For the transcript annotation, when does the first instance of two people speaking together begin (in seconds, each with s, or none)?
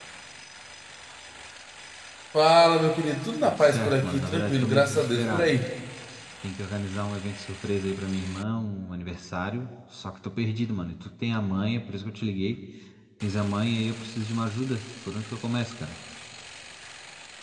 3.4 s